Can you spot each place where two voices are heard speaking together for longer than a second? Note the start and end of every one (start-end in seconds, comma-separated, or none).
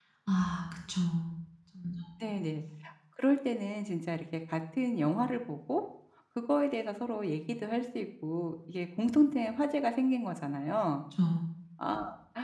none